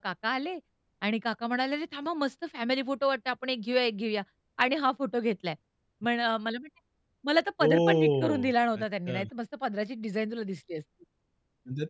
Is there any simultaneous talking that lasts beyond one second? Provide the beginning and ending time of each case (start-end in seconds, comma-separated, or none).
7.6-9.2